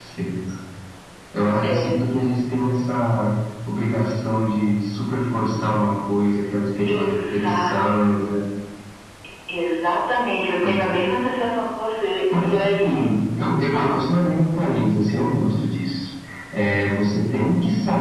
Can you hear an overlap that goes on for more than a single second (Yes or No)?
Yes